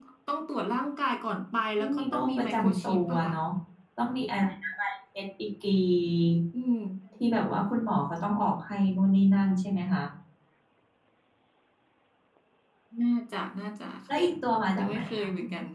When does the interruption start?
1.8 s

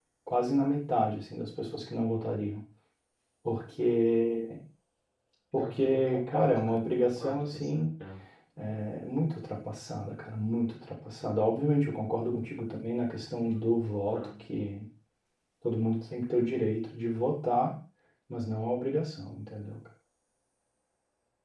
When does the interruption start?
5.6 s

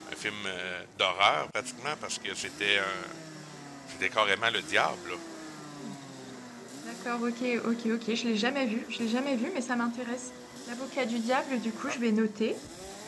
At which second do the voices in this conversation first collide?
none

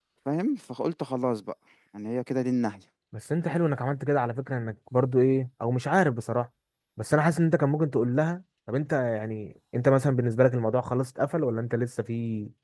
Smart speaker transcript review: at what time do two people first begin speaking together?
none

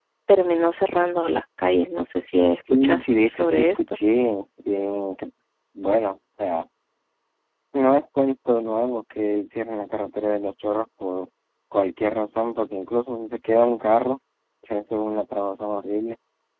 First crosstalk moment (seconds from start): 2.6 s

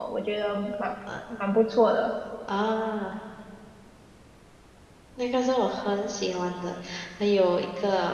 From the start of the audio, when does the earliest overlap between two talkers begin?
none

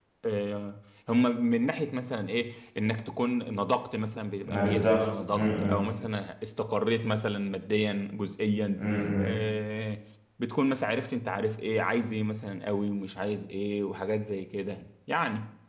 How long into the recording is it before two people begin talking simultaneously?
4.4 s

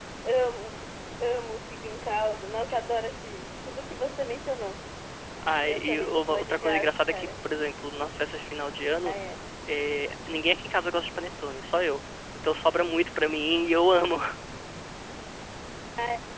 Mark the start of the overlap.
5.7 s

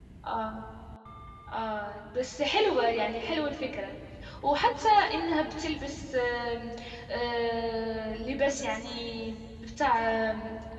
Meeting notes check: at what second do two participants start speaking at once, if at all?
none

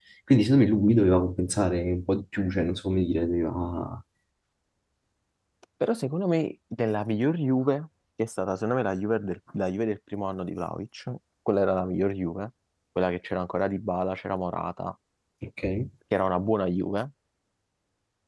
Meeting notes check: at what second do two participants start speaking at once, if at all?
none

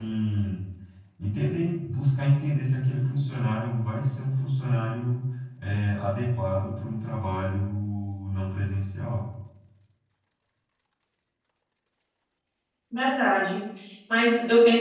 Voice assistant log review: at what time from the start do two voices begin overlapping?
none

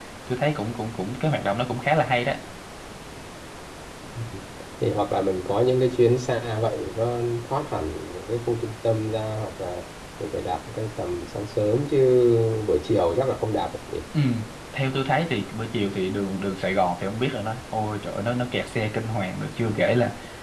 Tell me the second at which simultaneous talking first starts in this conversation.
none

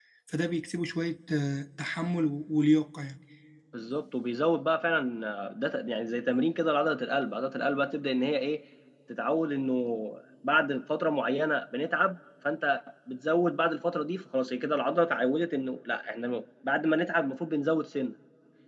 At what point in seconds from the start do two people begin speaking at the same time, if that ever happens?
none

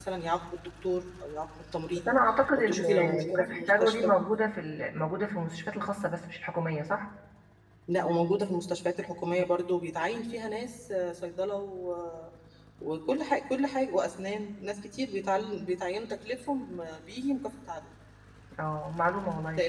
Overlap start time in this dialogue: 2.5 s

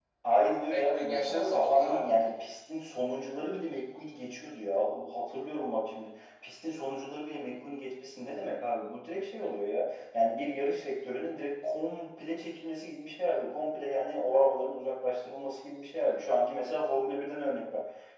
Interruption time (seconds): 0.7 s

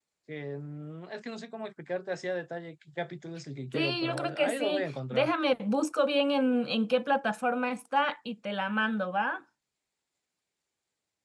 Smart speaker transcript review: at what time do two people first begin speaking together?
3.7 s

